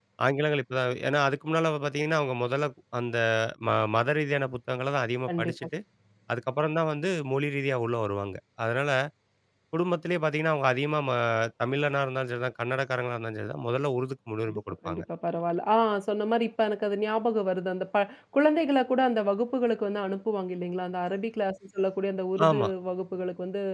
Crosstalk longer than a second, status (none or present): none